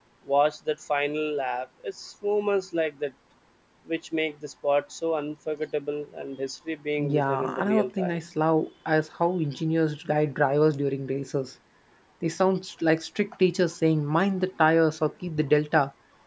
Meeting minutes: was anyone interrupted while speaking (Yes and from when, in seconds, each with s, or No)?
Yes, from 7.0 s